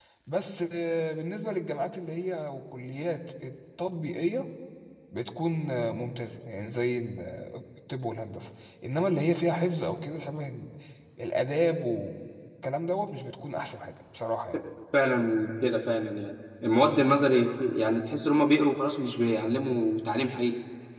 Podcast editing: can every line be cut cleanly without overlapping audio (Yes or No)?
Yes